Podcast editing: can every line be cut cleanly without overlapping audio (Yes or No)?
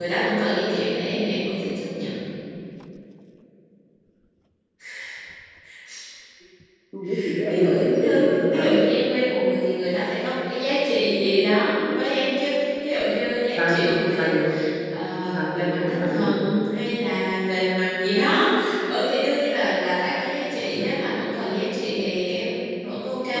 No